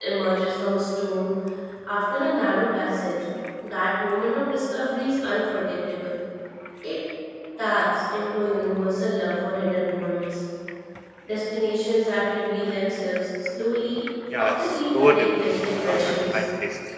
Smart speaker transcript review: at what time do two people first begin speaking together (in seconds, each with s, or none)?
14.3 s